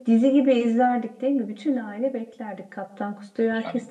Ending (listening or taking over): taking over